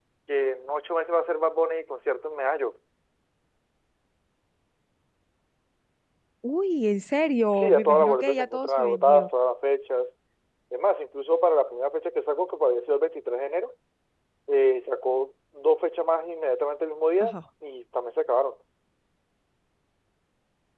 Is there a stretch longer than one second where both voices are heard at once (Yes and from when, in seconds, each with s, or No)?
Yes, from 7.6 s